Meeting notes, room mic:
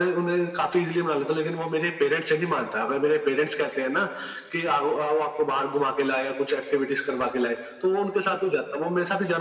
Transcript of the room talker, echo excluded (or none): none